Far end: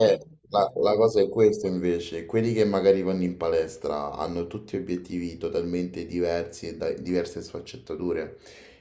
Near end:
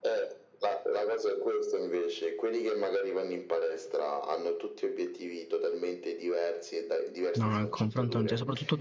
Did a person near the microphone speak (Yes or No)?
Yes